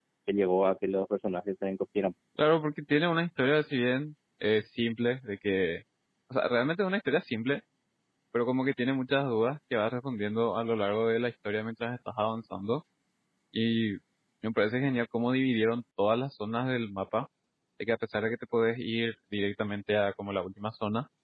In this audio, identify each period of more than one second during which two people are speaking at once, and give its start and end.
none

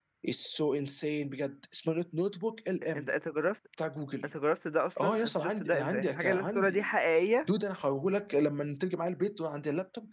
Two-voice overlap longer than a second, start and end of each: 5.0-6.9

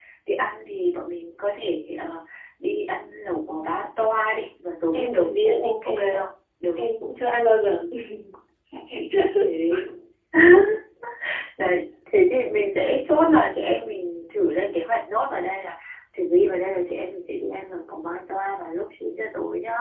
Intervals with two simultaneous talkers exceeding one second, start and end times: 5.0-6.3

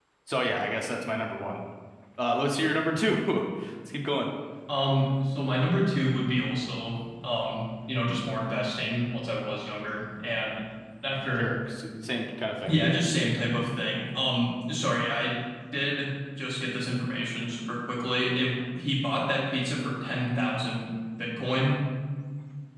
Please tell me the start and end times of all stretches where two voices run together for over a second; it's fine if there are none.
none

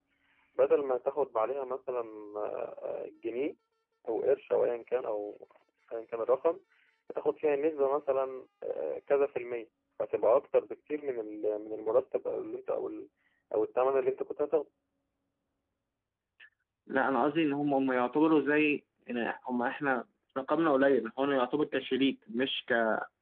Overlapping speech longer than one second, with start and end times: none

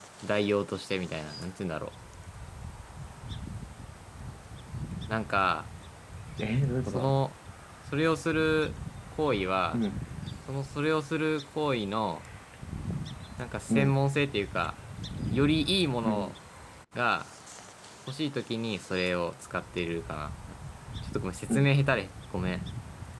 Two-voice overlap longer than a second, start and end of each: none

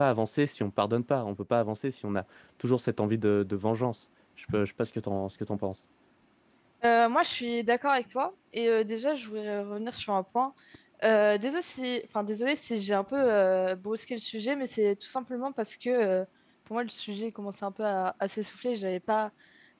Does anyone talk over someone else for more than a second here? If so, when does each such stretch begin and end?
none

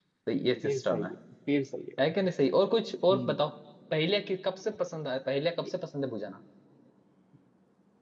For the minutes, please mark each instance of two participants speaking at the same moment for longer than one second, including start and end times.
none

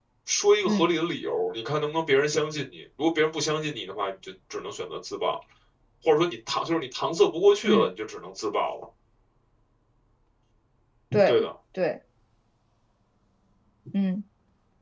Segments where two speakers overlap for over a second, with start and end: none

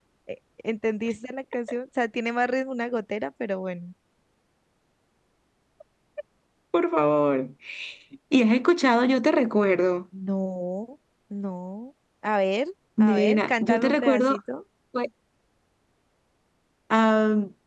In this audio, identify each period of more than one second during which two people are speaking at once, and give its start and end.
13.0-14.4

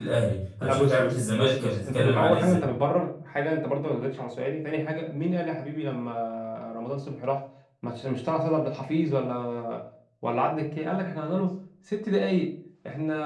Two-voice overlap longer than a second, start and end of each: 0.6-2.7

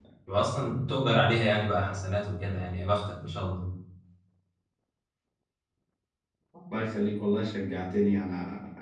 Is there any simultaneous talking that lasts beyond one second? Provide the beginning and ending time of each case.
none

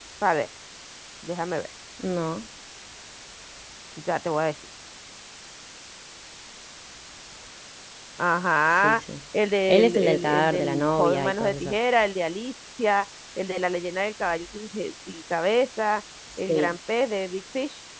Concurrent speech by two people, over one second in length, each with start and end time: 9.7-11.7

